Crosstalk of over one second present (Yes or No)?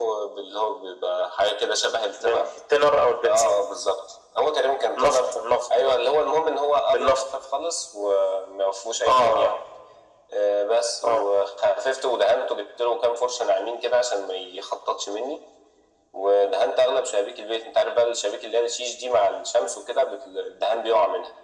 No